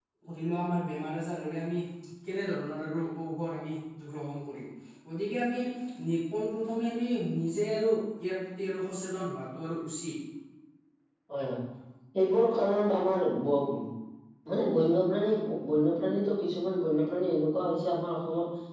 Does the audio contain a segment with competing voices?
No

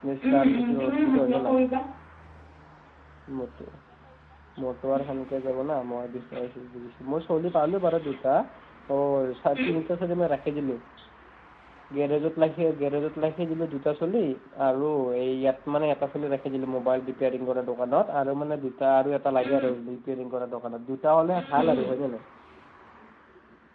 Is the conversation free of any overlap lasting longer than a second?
No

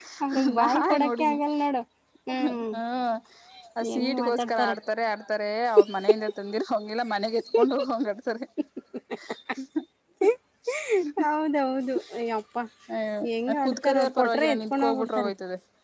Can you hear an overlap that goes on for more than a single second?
Yes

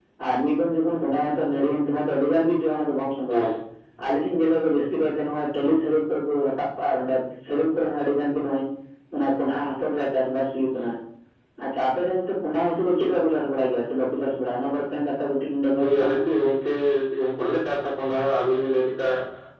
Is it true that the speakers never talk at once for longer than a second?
Yes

